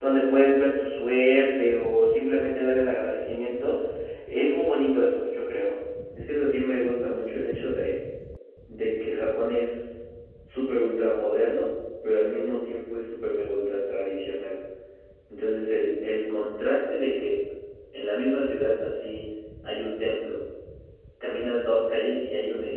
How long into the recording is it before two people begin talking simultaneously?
none

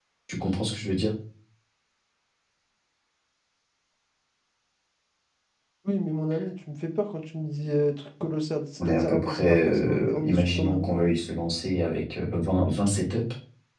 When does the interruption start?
9 s

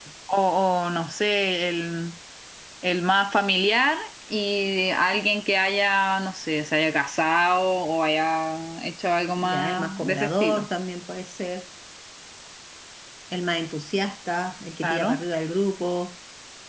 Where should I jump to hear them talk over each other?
9 s

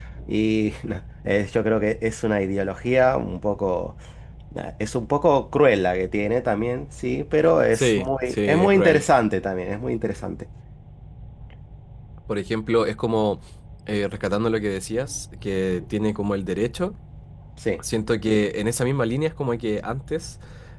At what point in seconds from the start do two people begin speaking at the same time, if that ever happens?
8 s

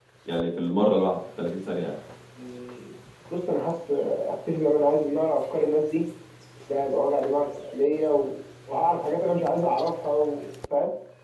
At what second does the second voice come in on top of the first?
none

